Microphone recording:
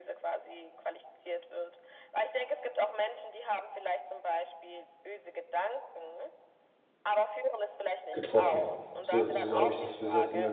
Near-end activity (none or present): present